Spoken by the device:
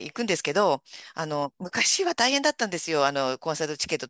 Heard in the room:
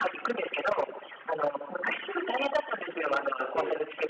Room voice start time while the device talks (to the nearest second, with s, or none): 3 s